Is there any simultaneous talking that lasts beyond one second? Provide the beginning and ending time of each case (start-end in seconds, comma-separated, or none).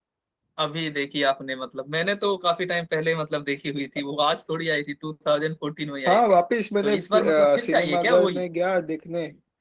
6.8-8.4